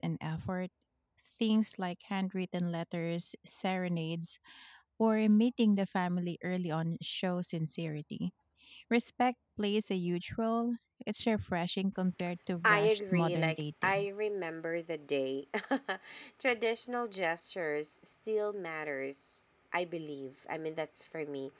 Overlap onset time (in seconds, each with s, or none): 12.6 s